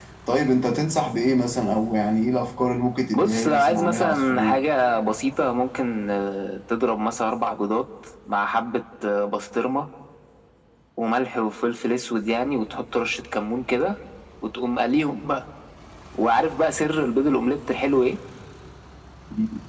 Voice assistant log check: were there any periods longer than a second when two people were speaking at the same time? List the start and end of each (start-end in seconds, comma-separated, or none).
3.1-4.6